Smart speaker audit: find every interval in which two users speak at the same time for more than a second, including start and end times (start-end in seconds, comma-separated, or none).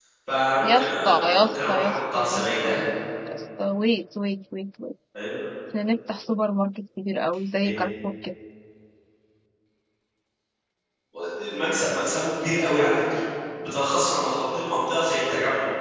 0.6-2.8